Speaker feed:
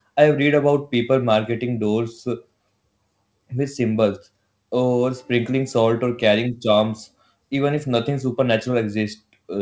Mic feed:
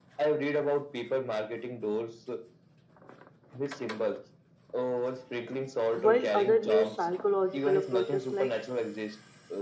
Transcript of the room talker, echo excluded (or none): while others use psychological approaches like